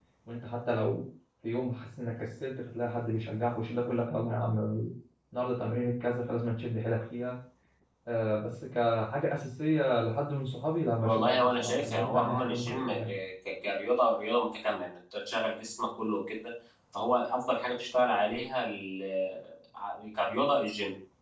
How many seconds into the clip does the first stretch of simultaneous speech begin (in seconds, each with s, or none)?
11.0 s